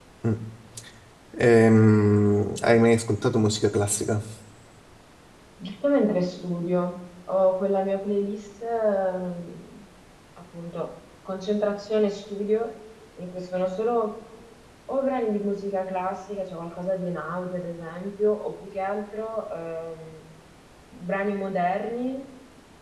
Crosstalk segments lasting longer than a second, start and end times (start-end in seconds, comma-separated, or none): none